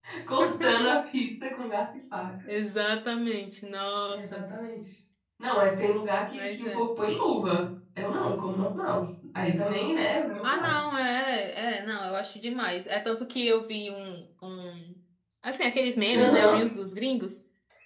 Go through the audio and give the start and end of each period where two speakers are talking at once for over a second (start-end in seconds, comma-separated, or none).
none